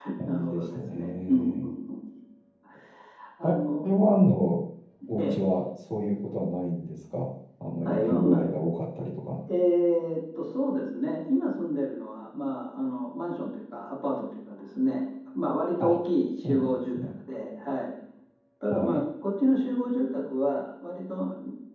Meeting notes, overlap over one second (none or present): present